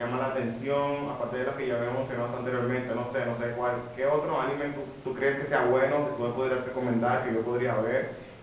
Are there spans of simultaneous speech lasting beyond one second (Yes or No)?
No